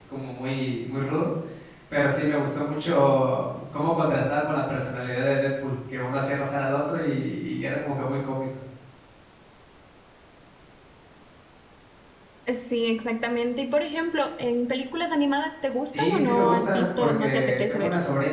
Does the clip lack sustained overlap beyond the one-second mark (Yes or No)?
No